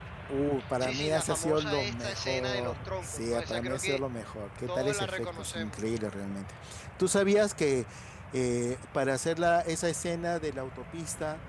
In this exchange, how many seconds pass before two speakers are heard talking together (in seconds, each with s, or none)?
0.8 s